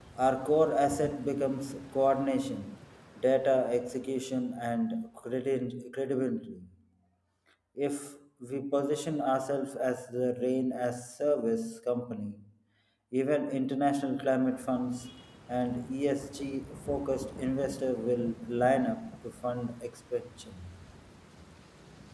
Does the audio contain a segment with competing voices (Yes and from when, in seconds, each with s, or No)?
No